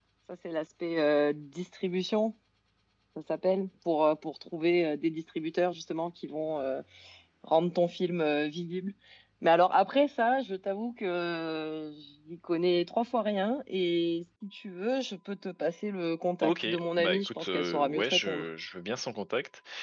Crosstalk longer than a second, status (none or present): present